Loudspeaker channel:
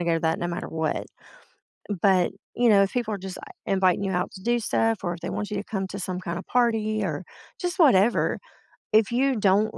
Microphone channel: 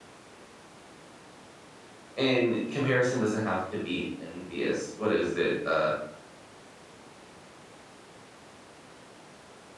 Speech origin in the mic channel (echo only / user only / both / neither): user only